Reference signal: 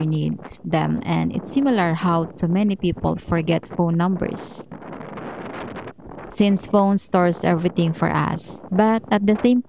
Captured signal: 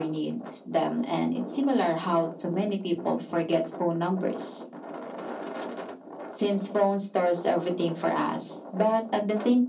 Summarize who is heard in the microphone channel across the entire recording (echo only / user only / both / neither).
echo only